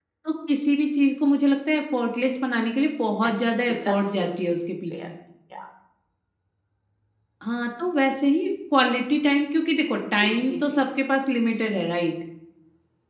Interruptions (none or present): present